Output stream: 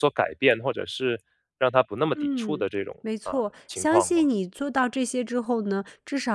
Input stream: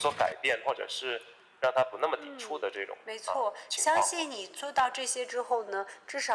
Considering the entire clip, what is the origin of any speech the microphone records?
echo only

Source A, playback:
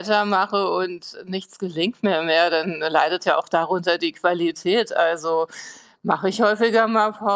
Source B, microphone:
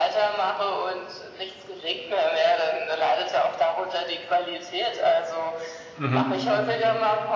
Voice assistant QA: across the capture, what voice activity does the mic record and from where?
both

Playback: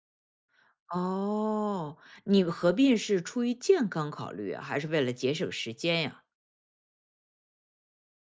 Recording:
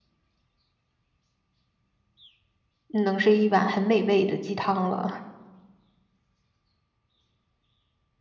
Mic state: user only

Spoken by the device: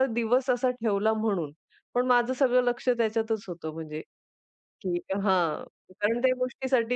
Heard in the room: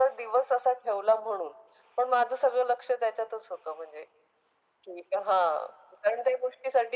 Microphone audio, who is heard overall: echo only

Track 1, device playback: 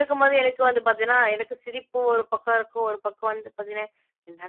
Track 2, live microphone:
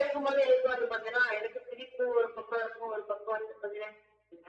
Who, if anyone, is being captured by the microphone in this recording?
echo only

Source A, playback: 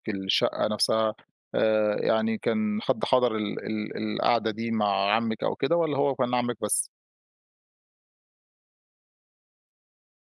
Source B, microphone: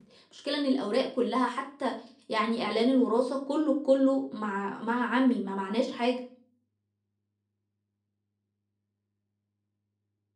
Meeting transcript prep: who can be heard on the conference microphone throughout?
user only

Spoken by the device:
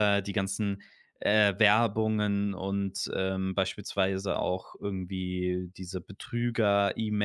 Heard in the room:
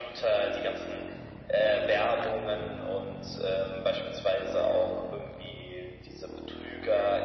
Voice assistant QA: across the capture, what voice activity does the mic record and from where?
echo only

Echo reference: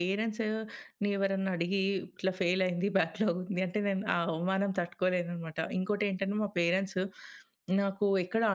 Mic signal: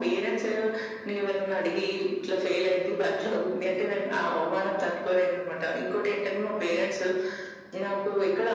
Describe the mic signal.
echo only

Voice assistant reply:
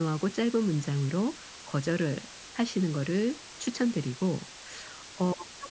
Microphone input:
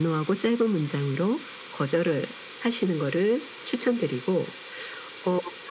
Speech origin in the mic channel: echo only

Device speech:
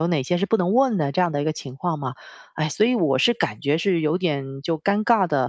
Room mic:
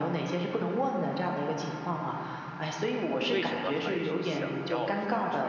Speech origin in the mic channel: both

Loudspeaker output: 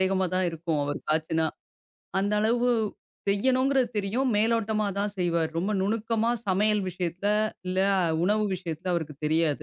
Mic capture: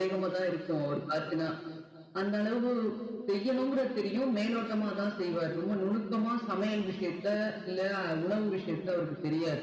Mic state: echo only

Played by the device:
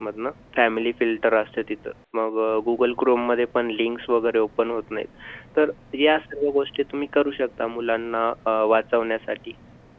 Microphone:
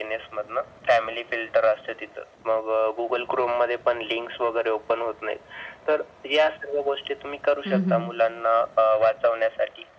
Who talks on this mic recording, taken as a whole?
both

